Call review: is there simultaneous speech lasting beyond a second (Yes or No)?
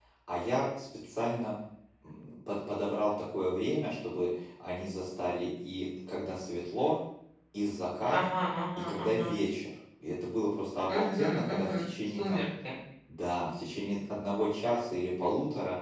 Yes